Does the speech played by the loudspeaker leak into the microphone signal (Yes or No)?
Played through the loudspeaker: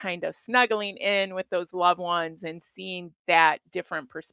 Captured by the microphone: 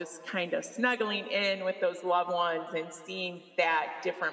Yes